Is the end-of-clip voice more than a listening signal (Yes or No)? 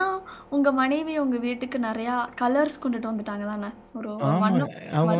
Yes